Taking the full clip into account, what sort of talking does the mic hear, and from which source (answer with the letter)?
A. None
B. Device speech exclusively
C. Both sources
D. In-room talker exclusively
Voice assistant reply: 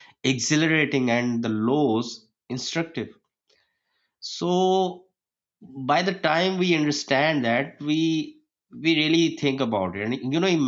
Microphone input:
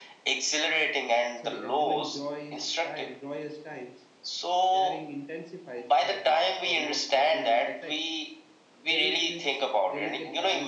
C